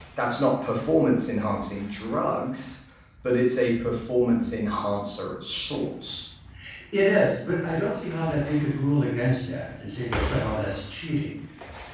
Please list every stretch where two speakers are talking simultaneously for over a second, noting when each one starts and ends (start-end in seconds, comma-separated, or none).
none